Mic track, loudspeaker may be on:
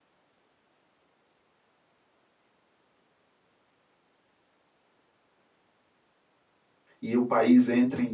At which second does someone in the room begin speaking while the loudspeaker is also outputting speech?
7.0 s

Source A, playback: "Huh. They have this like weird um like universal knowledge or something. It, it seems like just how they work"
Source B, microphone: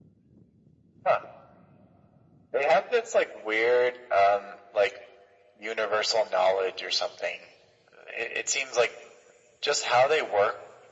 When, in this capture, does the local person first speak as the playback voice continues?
none

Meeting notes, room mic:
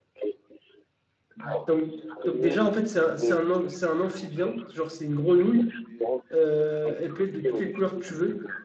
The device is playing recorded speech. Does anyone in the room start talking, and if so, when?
1.4 s

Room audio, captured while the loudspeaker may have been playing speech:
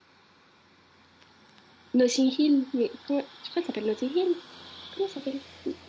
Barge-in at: 1.9 s

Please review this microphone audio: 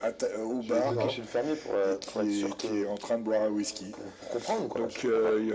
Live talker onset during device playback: 0.8 s

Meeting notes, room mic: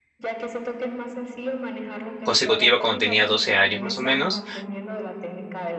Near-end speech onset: 2.2 s

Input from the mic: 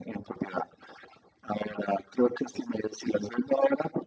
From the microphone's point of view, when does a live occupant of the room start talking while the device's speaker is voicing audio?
none

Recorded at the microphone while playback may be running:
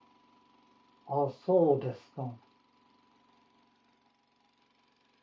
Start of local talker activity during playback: 1.1 s

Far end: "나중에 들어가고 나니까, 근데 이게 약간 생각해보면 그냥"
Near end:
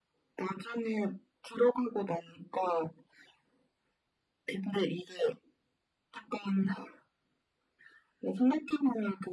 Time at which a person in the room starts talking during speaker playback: none

